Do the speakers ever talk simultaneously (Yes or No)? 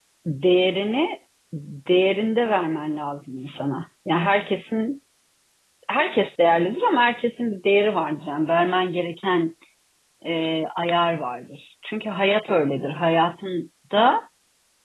No